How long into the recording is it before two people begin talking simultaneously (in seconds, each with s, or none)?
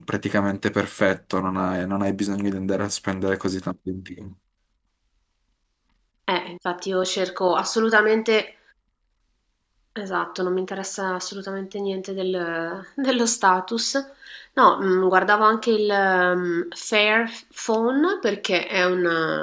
none